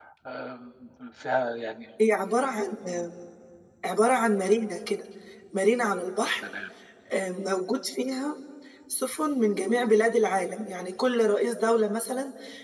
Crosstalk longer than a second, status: none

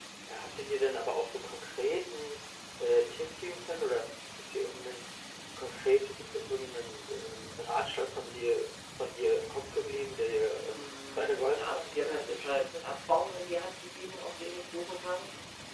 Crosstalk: present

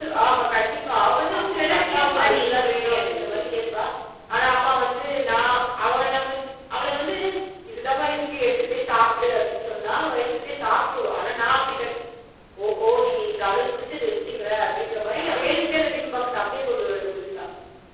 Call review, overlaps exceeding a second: present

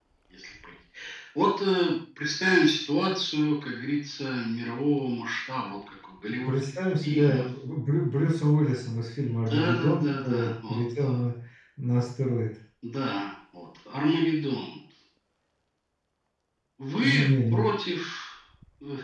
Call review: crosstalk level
present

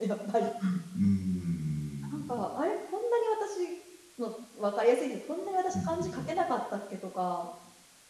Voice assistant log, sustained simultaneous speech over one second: none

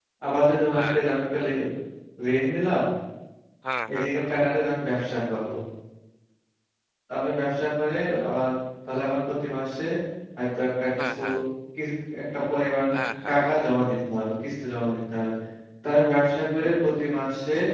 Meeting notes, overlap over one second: none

